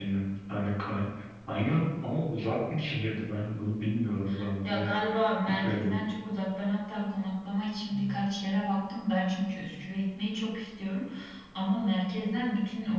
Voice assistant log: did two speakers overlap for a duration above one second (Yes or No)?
No